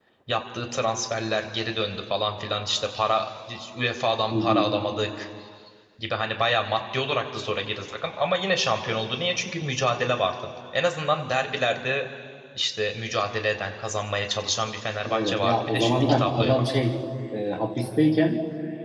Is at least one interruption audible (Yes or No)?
Yes